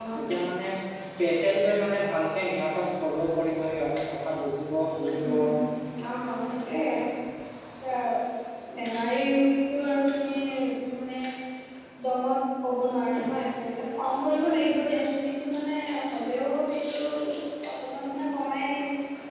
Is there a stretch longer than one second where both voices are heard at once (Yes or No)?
No